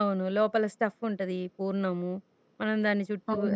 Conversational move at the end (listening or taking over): listening